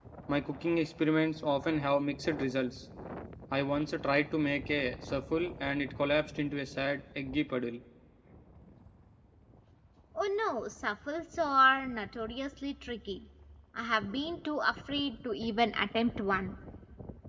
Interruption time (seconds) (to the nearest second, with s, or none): none